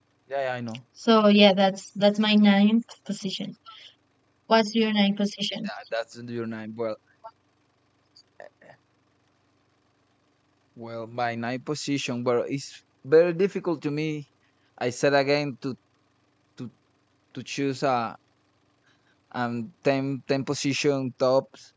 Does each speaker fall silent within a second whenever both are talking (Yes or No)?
Yes